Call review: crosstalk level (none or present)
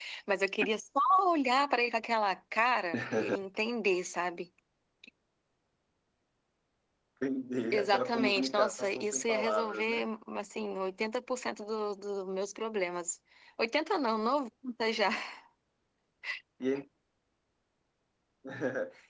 present